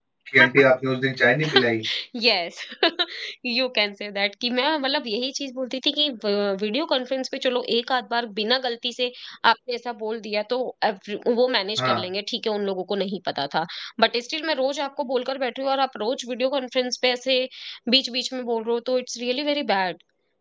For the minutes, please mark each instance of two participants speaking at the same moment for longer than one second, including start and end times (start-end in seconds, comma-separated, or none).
none